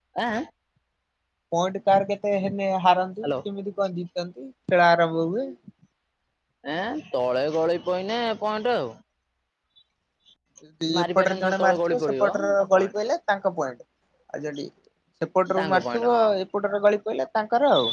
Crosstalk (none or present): present